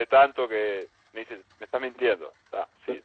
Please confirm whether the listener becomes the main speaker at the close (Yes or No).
Yes